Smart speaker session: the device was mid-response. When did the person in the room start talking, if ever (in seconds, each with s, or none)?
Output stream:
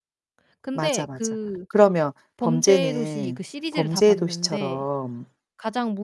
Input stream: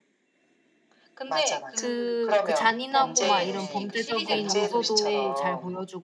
1.8 s